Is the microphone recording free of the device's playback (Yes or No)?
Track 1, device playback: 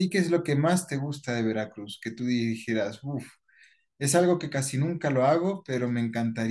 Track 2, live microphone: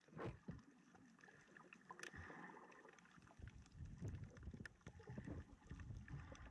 Yes